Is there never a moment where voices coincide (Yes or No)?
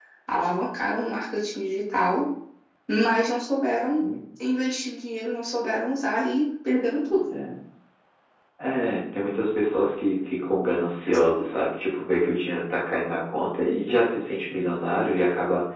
Yes